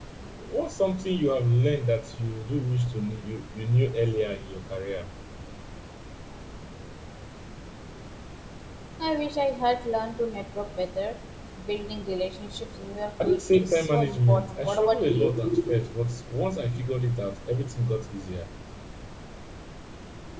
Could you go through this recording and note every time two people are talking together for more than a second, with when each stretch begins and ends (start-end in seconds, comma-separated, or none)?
13.2-15.6